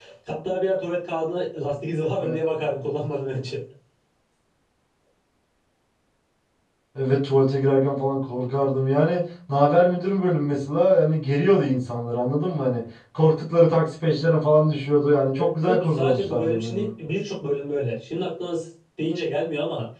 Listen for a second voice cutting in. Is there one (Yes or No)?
Yes